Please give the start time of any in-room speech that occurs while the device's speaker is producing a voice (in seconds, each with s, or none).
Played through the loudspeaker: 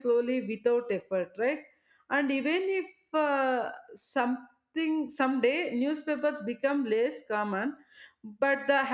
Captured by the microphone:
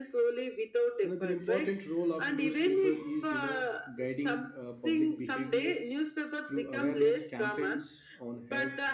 1.0 s